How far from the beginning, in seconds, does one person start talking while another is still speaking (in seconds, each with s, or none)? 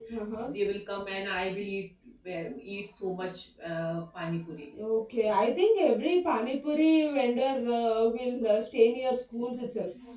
none